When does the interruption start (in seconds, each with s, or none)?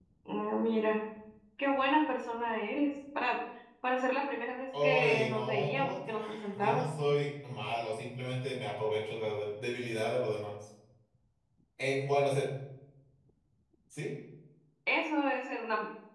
4.7 s